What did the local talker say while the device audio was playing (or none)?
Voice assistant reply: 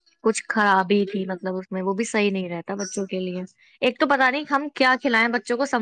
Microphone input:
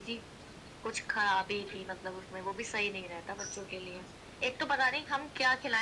none